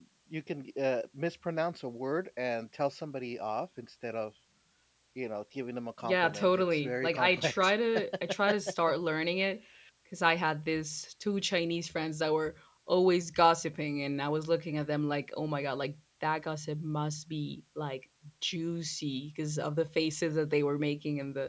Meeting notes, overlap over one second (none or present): present